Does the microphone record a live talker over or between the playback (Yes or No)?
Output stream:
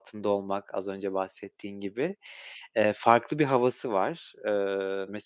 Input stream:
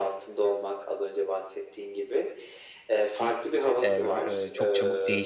Yes